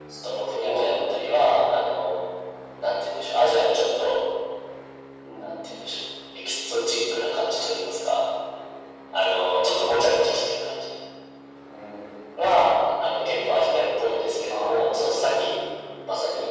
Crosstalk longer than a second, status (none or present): none